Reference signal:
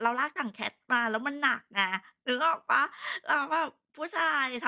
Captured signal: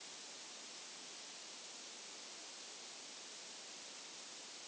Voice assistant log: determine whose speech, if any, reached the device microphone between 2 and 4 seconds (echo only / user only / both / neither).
neither